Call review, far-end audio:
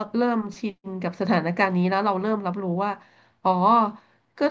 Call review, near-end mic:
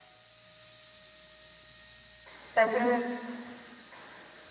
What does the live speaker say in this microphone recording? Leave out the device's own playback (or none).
แต่เธอ